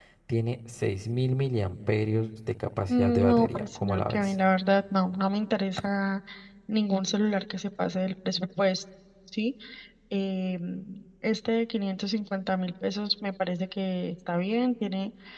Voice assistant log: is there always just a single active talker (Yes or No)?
No